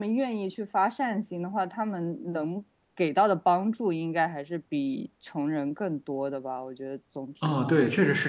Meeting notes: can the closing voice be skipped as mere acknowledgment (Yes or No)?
No